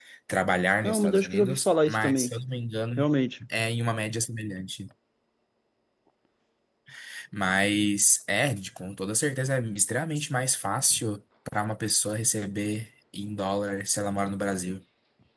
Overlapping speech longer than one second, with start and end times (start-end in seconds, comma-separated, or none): 0.8-2.3